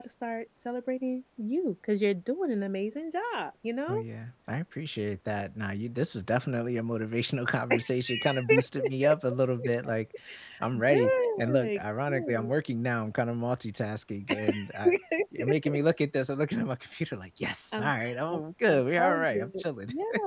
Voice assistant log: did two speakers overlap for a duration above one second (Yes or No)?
Yes